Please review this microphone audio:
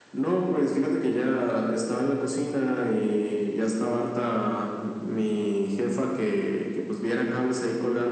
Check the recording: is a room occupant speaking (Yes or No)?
No